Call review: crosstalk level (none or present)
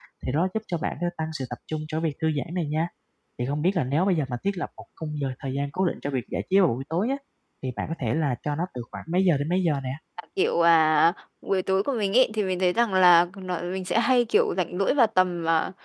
none